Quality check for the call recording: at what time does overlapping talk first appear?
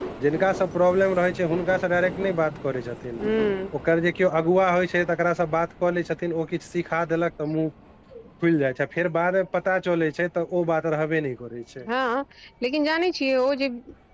none

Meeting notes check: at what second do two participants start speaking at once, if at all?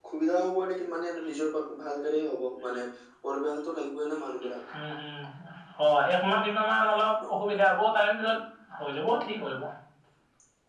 none

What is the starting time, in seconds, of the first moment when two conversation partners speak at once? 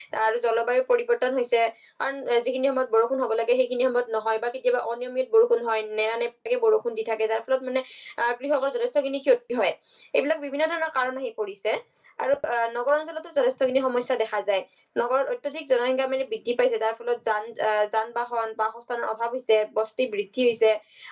none

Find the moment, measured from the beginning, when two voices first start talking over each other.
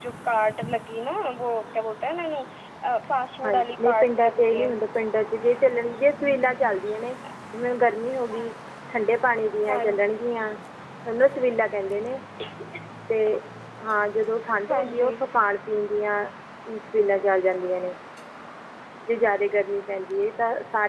3.4 s

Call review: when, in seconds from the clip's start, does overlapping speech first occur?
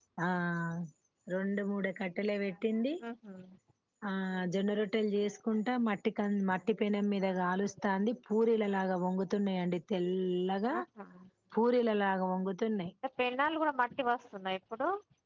none

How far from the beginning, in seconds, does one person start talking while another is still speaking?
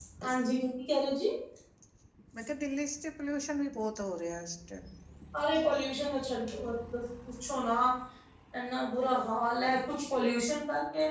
none

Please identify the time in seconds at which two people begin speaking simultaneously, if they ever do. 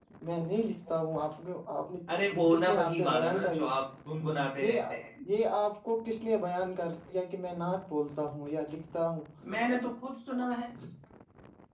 2.1 s

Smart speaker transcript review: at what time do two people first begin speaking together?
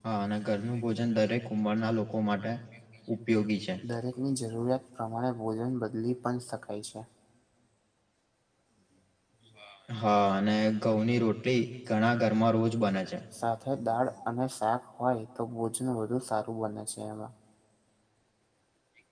none

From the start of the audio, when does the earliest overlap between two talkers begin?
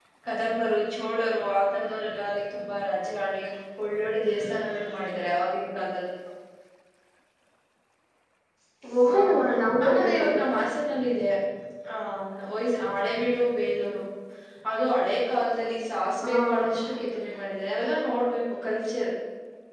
9.1 s

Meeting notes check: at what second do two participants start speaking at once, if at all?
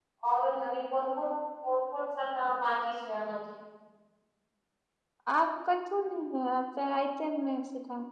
none

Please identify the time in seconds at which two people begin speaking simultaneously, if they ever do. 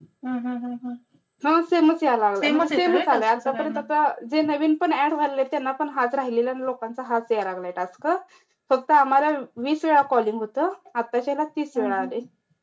2.4 s

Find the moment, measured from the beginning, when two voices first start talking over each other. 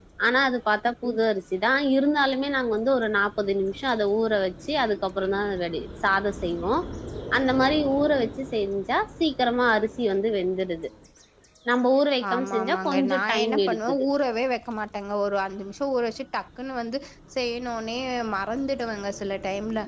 12.3 s

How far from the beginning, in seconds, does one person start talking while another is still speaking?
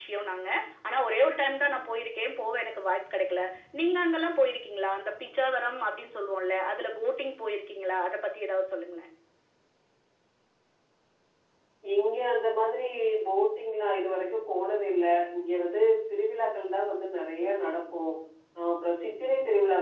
none

